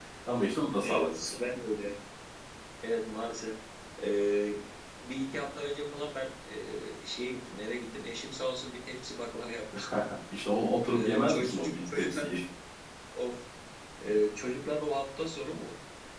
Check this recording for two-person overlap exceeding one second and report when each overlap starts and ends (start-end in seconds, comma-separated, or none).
10.9-12.3